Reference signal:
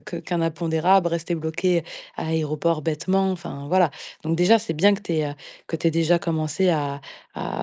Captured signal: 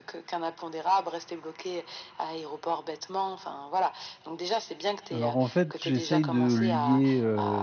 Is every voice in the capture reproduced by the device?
No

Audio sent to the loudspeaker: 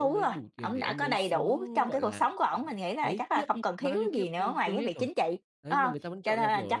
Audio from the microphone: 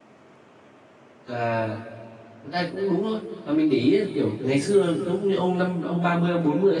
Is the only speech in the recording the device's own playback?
No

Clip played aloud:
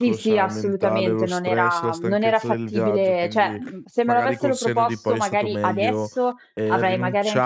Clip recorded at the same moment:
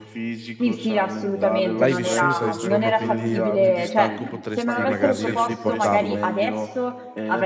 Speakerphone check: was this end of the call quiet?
No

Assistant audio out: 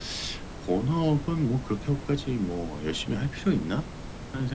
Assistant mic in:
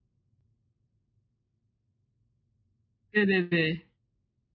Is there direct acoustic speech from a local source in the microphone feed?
Yes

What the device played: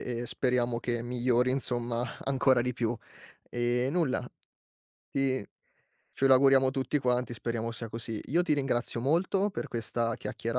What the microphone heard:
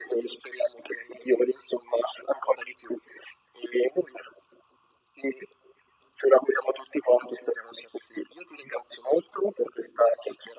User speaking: No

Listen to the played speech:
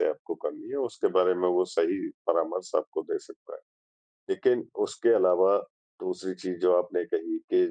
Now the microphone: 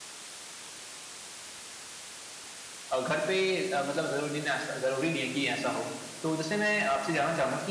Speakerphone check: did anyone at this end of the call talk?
Yes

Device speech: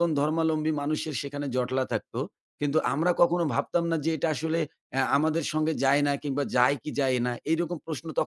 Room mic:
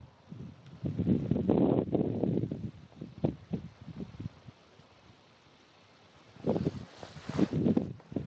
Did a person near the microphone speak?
No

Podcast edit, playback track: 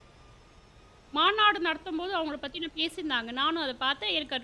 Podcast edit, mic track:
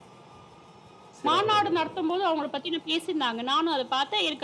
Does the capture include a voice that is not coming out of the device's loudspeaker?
Yes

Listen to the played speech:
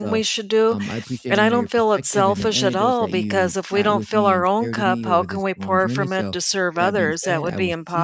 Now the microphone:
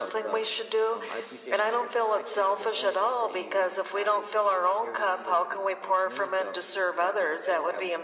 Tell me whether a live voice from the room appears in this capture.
No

